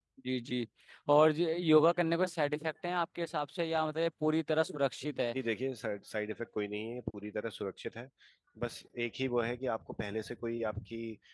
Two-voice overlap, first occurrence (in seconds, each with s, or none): none